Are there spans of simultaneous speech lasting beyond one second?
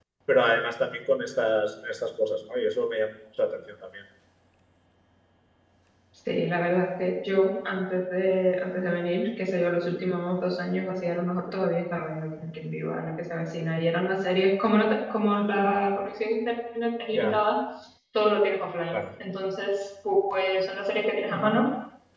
No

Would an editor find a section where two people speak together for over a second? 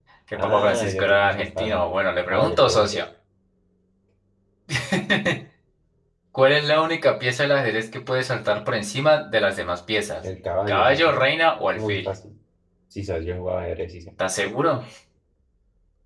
Yes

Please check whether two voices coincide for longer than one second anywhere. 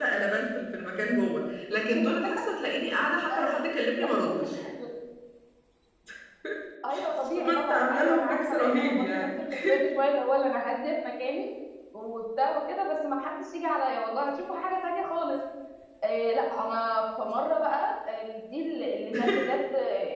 Yes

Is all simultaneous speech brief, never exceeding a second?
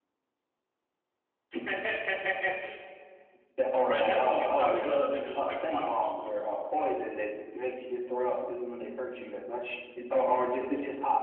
No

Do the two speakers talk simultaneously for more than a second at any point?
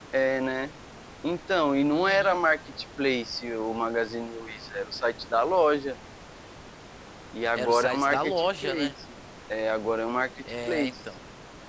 Yes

